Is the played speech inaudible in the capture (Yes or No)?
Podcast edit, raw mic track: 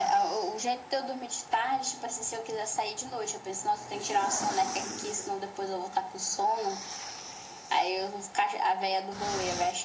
No